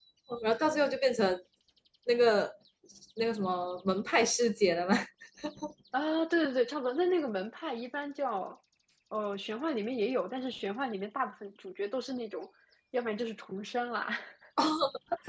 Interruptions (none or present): none